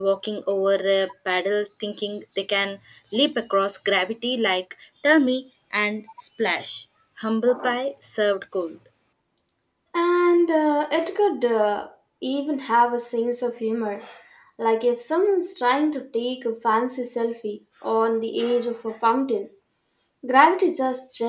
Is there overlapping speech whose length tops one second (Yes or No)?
No